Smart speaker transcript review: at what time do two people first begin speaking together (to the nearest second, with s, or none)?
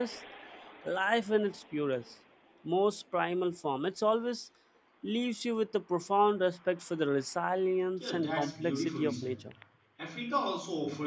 8 s